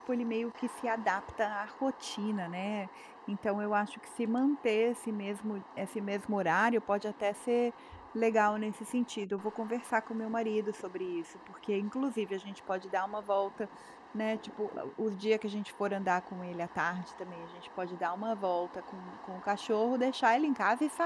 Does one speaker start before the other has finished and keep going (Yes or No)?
No